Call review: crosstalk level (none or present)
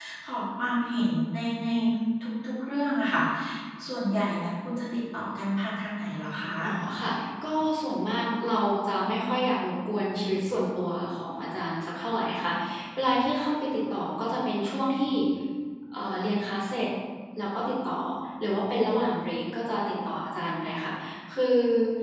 none